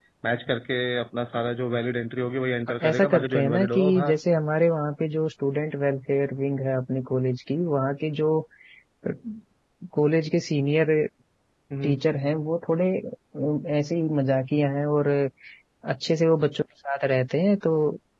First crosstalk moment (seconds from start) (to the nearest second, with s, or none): 3 s